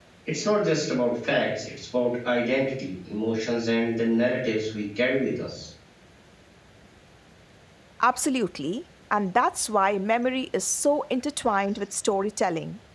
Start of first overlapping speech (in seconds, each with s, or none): none